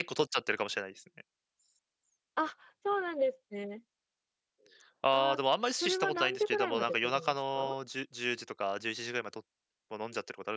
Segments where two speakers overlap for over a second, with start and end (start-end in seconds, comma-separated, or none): 5.8-7.8